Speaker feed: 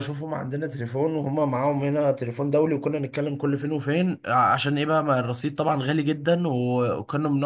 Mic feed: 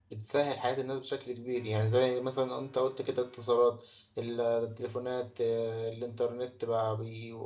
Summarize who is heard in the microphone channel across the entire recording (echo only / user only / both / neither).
user only